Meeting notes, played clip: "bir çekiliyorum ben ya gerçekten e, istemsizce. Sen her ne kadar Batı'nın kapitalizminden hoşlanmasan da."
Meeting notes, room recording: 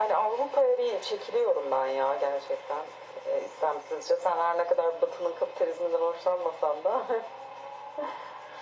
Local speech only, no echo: none

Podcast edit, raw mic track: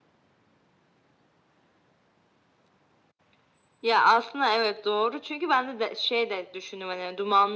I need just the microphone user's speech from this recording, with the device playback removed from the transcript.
none

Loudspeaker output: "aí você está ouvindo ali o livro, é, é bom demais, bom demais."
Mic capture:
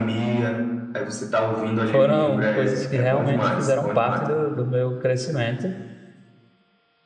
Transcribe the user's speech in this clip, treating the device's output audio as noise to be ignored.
foram coisas que realmente fizeram parte do, do meu crescimento,

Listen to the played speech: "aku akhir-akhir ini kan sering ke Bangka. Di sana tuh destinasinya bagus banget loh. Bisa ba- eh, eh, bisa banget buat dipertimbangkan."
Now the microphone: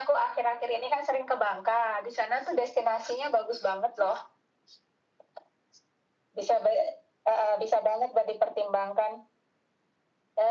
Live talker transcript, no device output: none

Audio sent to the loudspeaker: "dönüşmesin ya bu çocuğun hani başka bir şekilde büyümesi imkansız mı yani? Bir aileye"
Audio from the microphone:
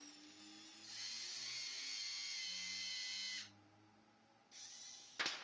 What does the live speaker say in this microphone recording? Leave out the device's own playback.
none

